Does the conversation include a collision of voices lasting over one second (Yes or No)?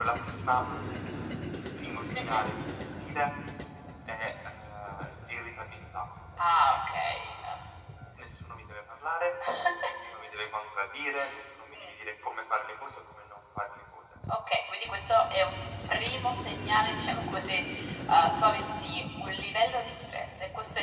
No